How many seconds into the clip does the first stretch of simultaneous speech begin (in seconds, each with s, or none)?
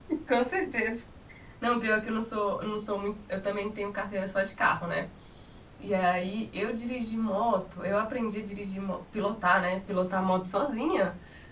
none